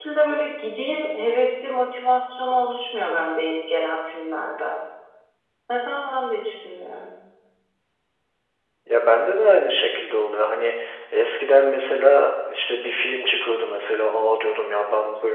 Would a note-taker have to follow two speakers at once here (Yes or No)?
No